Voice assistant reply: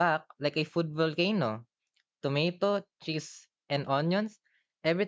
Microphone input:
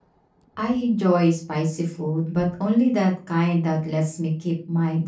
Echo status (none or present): none